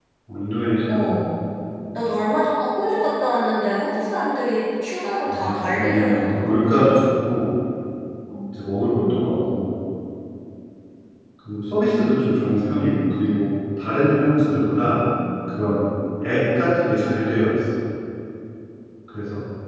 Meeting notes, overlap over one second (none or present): present